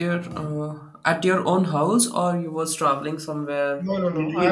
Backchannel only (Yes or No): No